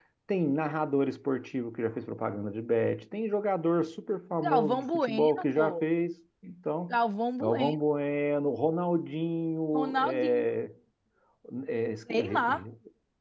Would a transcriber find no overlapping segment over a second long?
No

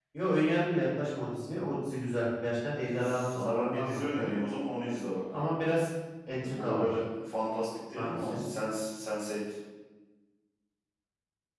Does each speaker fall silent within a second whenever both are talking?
No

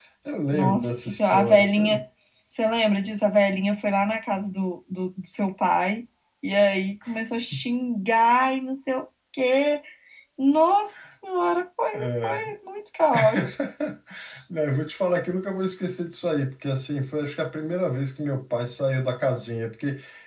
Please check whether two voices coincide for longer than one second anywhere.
Yes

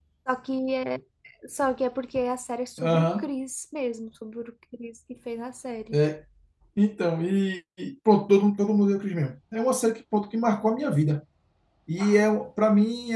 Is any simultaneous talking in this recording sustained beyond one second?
No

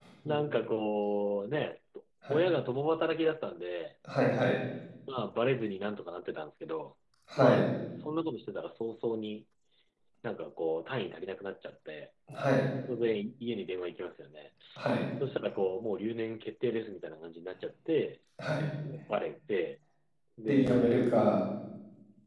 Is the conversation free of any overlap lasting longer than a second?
Yes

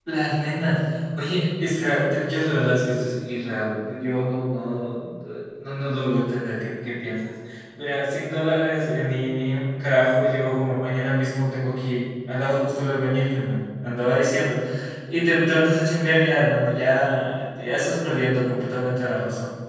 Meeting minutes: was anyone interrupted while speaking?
No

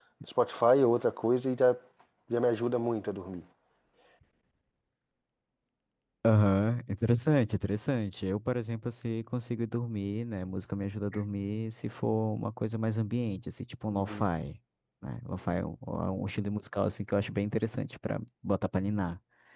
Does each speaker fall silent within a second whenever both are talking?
Yes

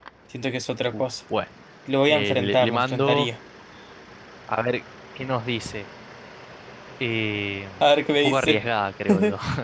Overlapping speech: Yes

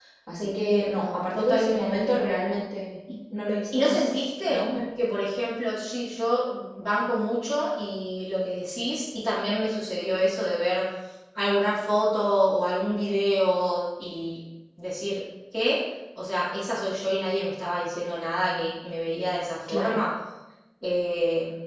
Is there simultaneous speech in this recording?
Yes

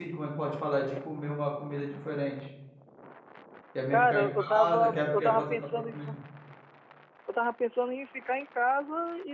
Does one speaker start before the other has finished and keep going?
Yes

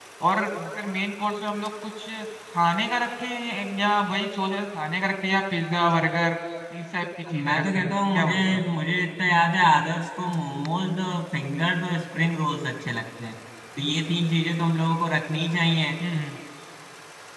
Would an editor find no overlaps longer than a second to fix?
No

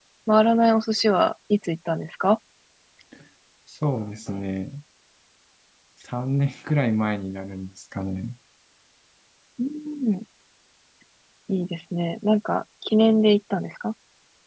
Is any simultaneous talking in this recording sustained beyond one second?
No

